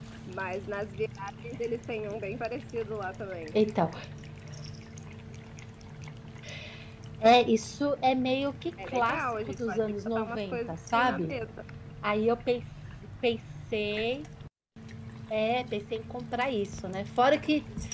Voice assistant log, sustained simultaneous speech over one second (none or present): present